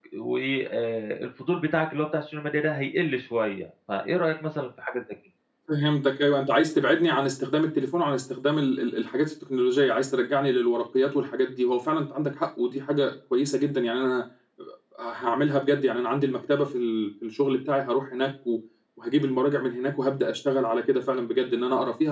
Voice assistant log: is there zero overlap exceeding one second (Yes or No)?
Yes